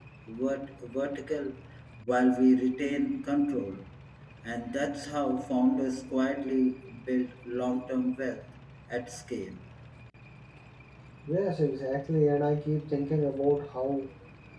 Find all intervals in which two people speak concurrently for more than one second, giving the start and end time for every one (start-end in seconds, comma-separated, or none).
none